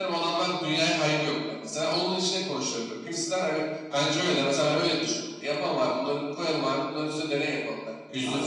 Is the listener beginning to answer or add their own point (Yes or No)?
No